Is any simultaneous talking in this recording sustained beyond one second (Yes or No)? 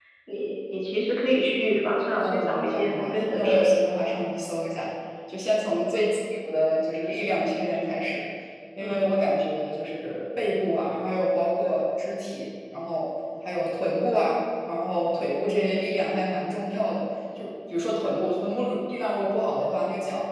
Yes